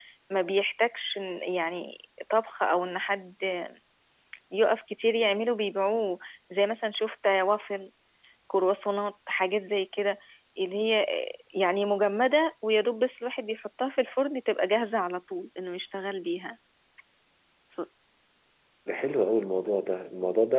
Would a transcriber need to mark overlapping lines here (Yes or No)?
No